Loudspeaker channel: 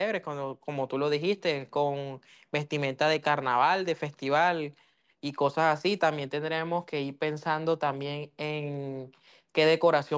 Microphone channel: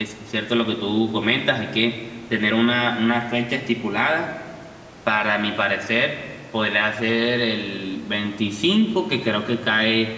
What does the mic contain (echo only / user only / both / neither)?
user only